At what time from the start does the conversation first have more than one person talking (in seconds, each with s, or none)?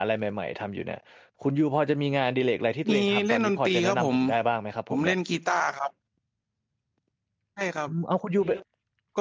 2.9 s